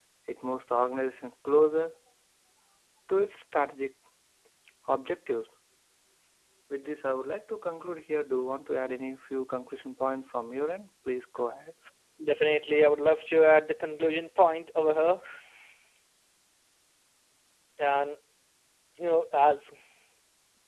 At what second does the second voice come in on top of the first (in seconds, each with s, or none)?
none